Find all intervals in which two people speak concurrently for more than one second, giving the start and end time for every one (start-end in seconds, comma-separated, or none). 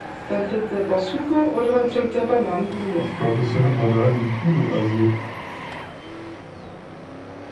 none